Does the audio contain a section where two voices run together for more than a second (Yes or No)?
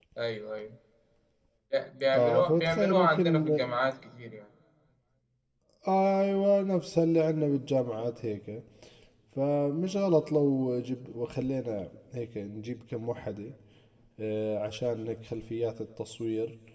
Yes